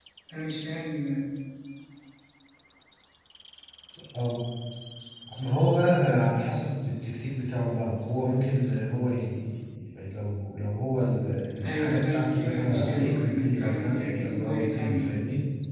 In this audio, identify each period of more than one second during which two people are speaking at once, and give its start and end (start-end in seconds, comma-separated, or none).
11.6-15.2